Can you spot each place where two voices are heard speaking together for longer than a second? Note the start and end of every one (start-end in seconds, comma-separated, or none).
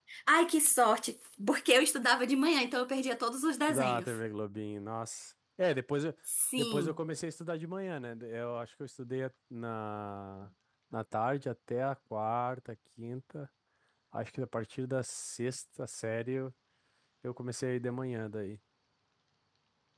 none